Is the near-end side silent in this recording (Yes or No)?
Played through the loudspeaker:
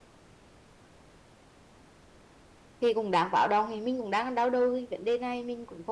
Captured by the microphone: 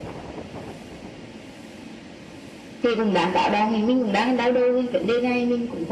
Yes